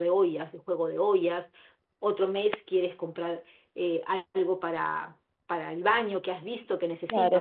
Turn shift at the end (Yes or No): Yes